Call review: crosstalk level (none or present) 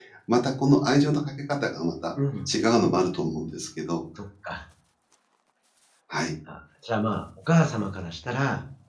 none